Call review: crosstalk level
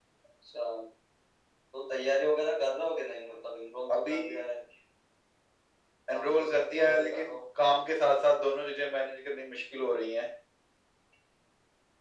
present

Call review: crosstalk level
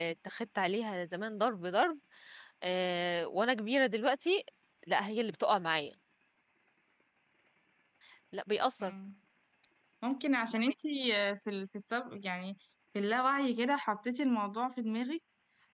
none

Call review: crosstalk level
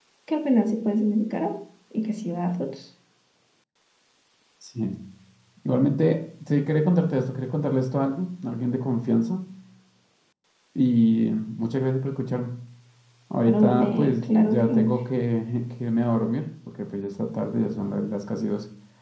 present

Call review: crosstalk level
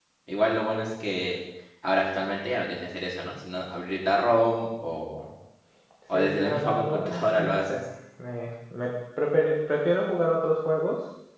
present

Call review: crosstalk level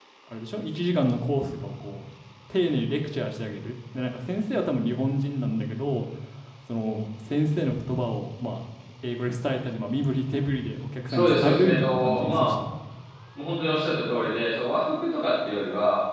present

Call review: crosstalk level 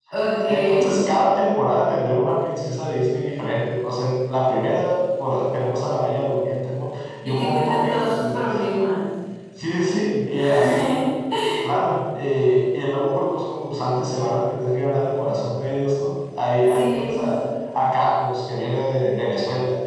present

